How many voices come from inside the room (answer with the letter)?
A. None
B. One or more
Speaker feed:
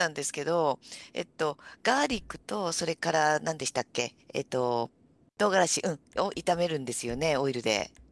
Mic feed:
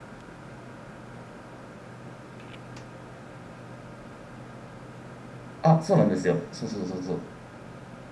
B